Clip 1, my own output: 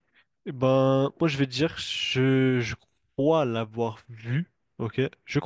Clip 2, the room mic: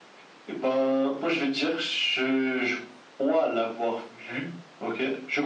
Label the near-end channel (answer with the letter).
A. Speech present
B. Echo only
B